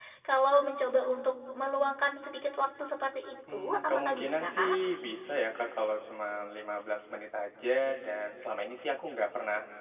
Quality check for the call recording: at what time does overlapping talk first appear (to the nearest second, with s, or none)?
3 s